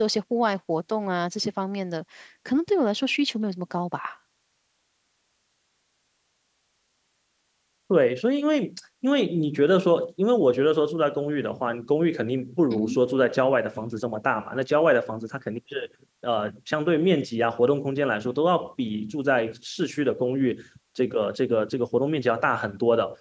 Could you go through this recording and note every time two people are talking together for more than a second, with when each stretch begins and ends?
none

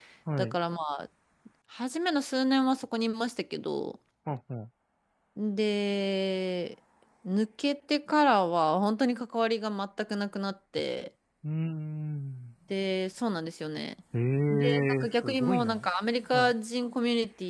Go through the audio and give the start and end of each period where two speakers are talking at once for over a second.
14.5-15.9

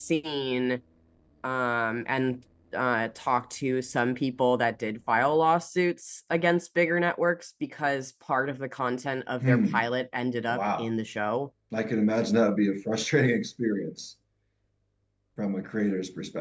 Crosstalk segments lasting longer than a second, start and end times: none

